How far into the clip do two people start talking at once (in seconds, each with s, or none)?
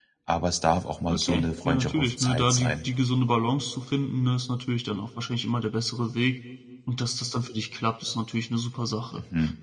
1.1 s